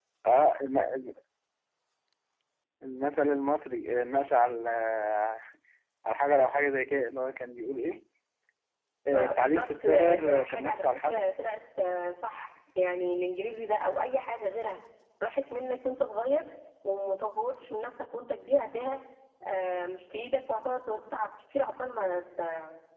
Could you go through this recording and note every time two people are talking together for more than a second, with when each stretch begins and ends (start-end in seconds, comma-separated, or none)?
9.1-11.2